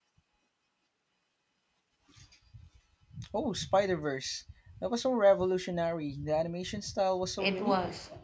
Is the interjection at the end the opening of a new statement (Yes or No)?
Yes